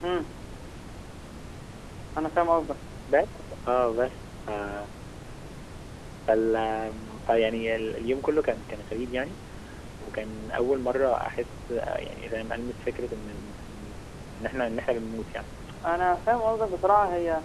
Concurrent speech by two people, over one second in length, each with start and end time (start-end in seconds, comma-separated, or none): none